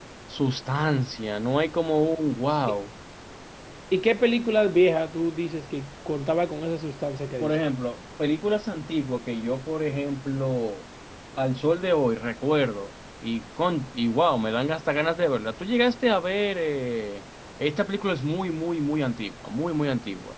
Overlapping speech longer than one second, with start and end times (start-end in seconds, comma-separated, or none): none